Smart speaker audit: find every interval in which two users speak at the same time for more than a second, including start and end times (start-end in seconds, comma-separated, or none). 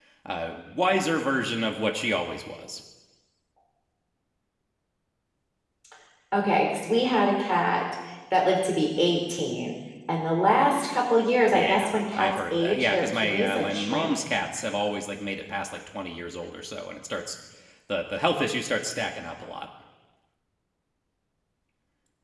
11.5-14.1